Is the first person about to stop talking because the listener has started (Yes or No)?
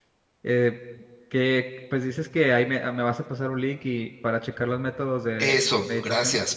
Yes